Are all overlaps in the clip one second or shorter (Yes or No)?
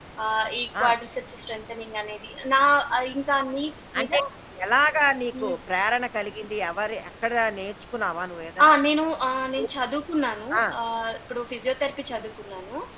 Yes